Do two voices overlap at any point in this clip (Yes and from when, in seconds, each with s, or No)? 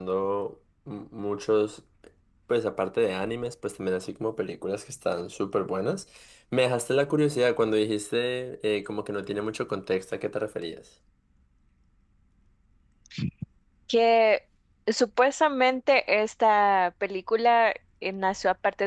No